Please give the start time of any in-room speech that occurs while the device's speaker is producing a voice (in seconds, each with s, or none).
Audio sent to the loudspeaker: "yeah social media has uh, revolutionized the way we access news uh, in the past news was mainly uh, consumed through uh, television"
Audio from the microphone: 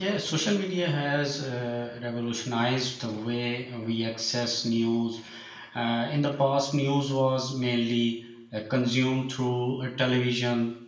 none